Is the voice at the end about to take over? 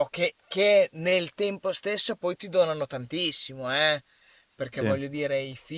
No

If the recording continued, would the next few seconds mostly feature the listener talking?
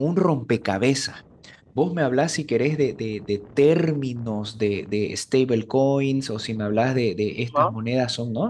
No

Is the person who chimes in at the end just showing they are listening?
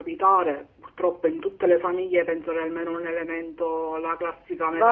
No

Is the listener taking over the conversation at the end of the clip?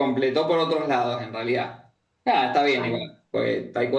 No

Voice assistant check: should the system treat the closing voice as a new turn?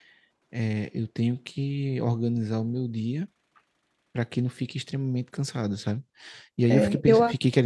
No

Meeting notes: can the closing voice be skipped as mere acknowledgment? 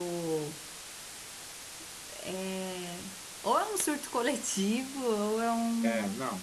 No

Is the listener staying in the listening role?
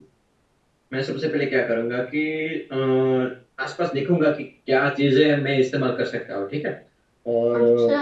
Yes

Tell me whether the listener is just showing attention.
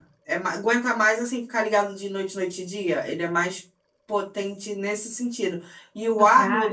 Yes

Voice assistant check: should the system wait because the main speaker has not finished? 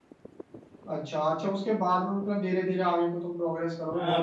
No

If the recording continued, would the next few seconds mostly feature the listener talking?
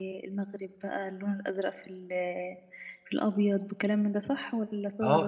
Yes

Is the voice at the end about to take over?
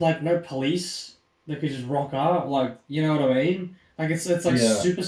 No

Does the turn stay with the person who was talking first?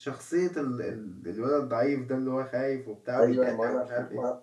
No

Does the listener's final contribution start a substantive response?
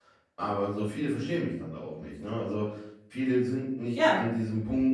No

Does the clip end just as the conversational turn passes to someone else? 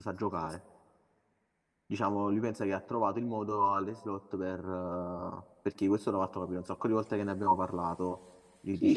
Yes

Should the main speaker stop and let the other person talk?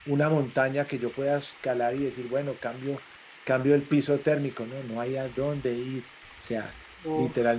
No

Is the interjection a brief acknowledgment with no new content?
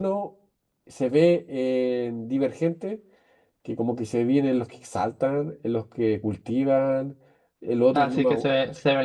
No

